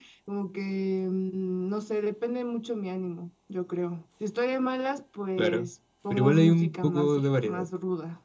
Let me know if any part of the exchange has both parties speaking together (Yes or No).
Yes